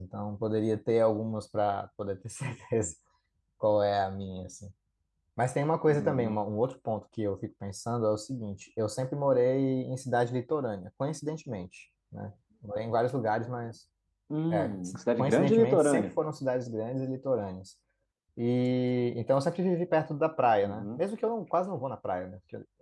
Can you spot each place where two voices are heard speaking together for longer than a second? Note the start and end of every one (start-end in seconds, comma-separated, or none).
14.5-16.1